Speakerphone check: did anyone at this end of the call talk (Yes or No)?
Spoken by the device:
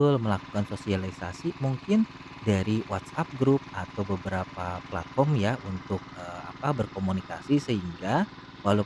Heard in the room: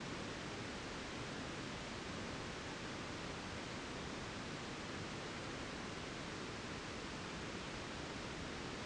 No